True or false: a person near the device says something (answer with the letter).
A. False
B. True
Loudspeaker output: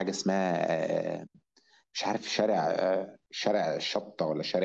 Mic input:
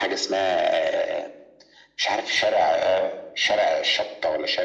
A